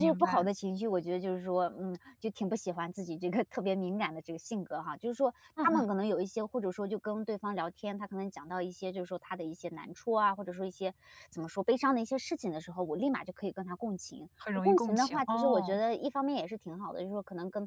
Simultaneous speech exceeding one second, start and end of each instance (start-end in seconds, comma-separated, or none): 14.6-15.8